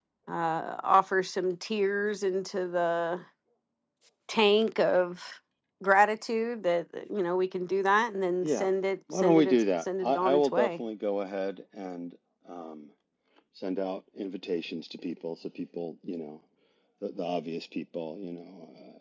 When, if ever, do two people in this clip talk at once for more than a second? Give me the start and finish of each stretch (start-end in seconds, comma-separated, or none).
9.1-10.8